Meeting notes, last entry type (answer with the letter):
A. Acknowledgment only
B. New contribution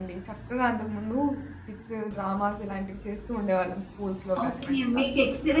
B